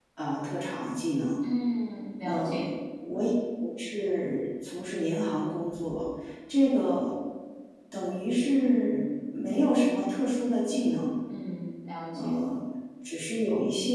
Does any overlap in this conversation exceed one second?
No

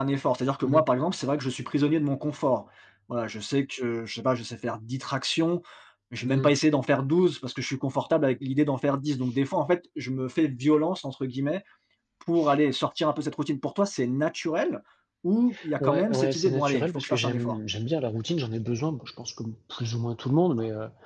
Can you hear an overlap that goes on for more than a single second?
Yes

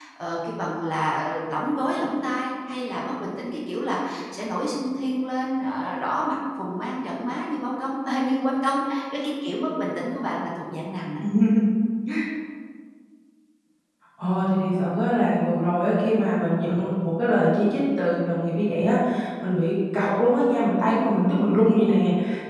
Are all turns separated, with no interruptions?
Yes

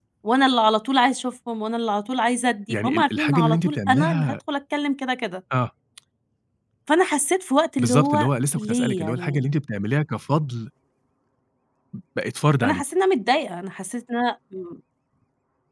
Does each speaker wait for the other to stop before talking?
No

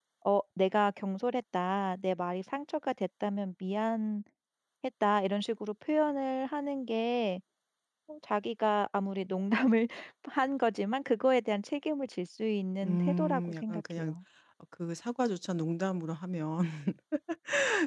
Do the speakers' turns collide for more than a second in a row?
Yes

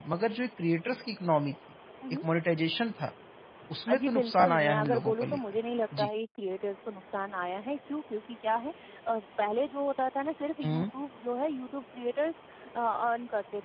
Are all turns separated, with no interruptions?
No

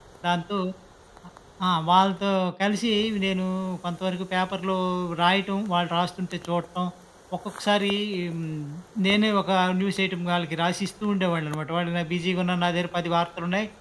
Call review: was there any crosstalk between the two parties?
No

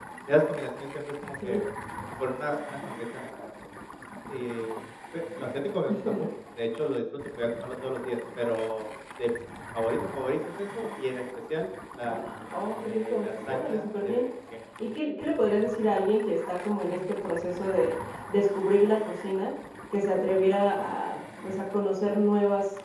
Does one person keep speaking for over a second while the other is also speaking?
Yes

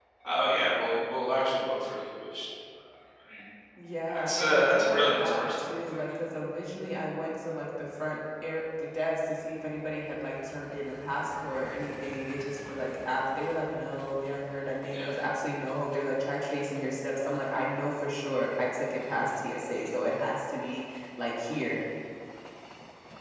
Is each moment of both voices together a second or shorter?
No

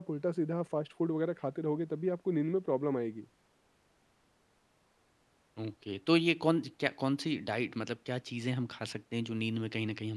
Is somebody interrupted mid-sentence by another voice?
No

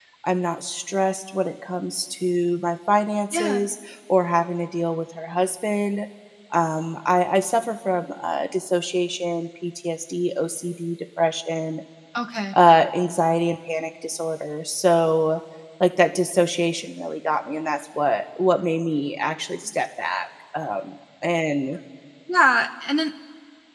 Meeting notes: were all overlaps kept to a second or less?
Yes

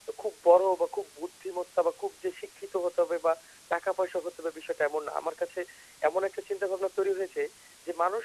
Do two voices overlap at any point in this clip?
No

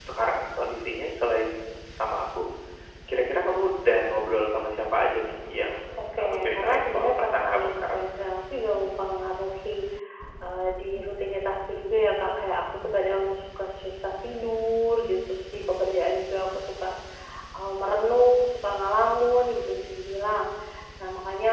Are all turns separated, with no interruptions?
No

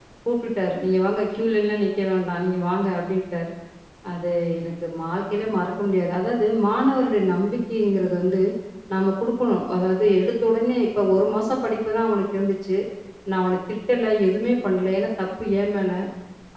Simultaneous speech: No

